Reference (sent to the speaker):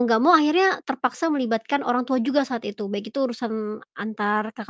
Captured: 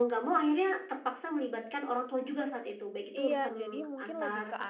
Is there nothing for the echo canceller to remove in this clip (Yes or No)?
No